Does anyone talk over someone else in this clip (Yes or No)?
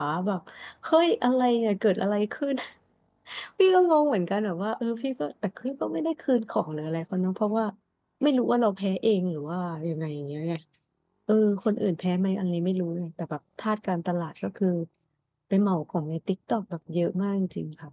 No